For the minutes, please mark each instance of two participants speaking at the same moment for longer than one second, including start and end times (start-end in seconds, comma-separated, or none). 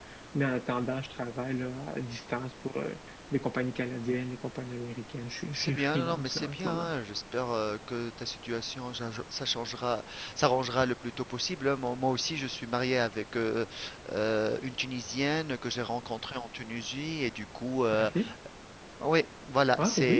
5.6-6.9